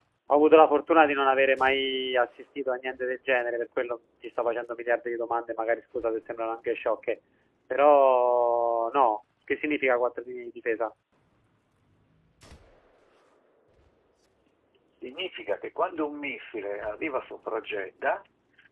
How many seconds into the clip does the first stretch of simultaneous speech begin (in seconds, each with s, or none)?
none